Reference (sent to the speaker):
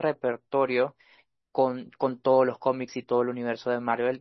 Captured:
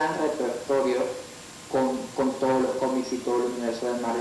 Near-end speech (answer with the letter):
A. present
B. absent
B